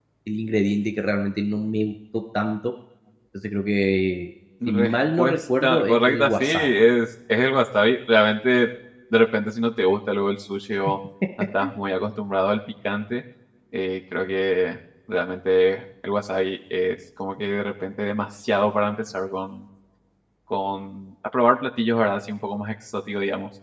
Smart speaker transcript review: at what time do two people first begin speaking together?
4.6 s

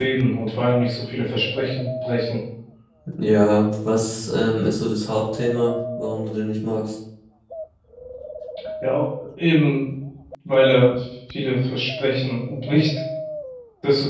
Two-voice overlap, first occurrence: none

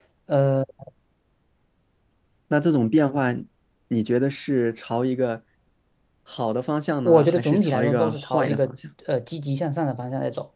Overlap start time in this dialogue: 7.0 s

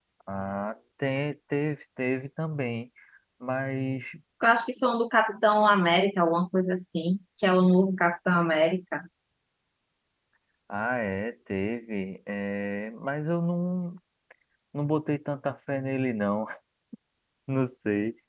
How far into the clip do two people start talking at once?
none

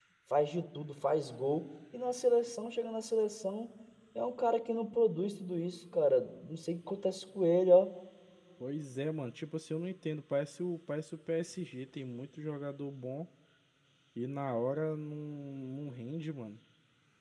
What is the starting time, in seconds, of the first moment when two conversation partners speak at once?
none

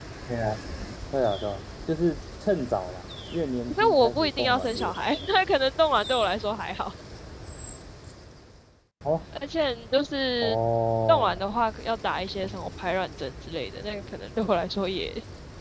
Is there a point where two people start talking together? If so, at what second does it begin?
3.7 s

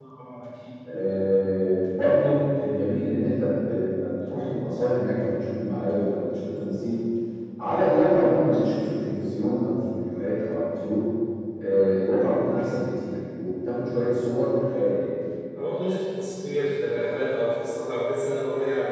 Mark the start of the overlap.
none

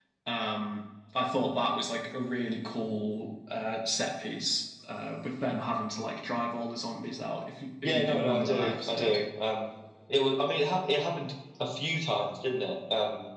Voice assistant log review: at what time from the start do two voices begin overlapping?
7.8 s

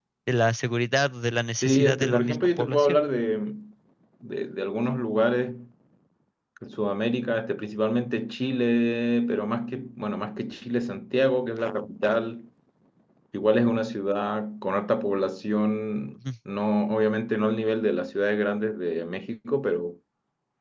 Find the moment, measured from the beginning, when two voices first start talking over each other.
1.6 s

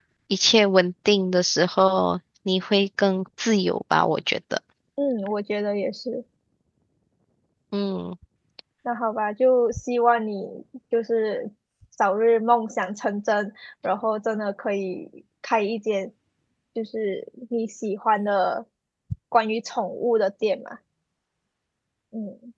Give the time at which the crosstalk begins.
none

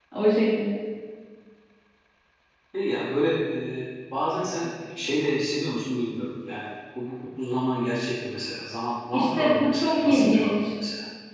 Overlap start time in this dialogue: 9.1 s

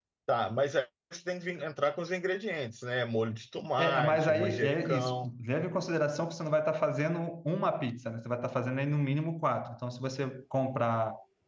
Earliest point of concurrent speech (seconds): 3.8 s

